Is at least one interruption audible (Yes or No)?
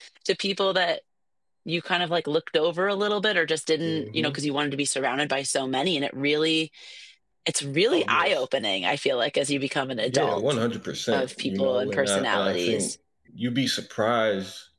Yes